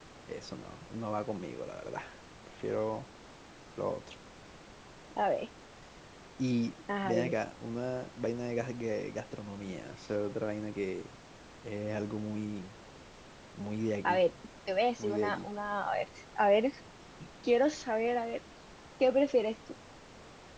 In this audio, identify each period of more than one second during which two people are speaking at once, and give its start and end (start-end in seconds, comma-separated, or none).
none